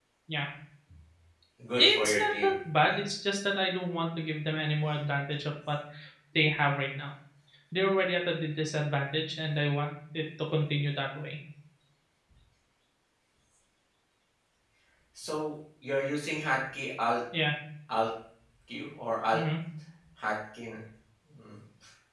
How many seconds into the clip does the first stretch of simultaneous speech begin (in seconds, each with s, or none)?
1.8 s